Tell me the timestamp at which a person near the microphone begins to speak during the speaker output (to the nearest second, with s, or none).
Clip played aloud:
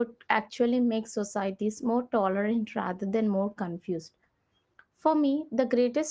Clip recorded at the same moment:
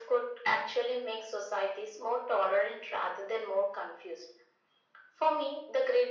none